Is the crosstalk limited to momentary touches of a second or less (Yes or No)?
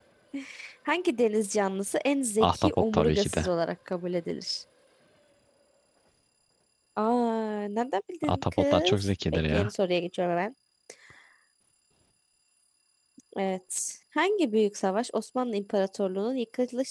No